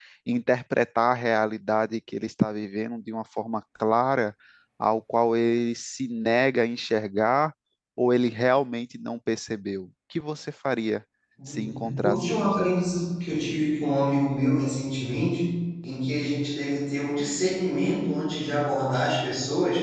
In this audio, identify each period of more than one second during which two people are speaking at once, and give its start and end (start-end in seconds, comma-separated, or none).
11.5-12.7